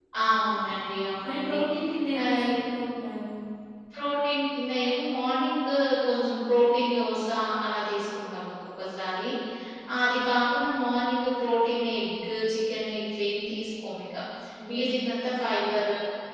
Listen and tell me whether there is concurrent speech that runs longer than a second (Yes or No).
No